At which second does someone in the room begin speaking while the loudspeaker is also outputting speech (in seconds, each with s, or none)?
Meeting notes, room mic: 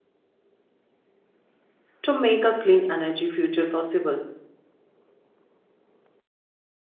2.0 s